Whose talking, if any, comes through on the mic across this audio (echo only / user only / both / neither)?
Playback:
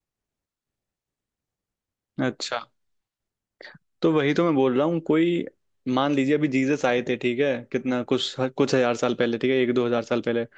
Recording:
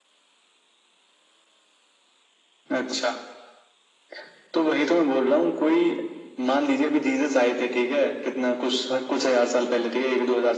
echo only